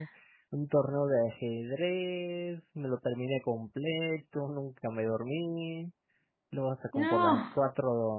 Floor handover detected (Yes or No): No